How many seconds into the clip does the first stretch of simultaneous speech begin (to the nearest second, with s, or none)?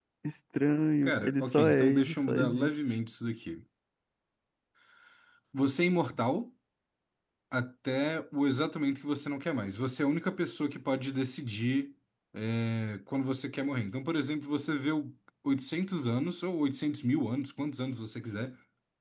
1 s